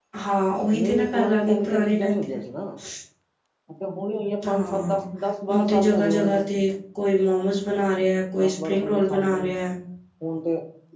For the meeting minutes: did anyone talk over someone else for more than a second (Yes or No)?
Yes